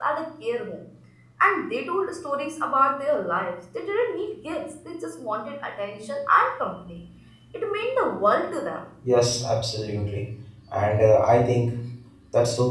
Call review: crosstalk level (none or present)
none